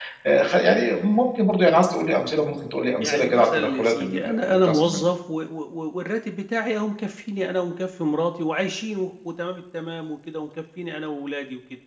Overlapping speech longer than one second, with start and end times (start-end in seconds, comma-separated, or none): 3.0-5.0